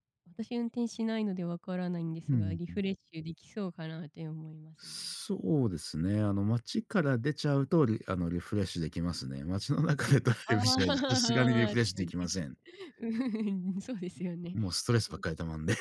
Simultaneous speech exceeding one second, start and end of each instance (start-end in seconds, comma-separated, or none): 10.5-12.1